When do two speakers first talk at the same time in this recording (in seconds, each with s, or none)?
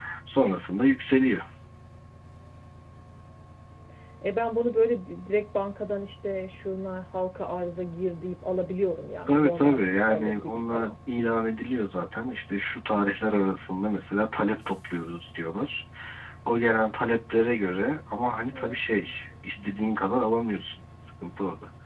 9.3 s